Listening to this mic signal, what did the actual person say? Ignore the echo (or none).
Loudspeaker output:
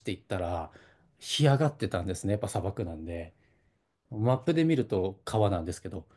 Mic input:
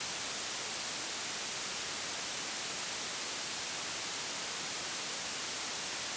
none